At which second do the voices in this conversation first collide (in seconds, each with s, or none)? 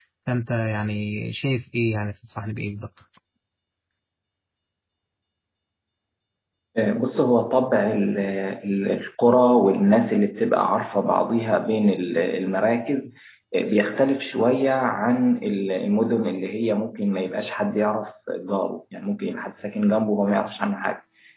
none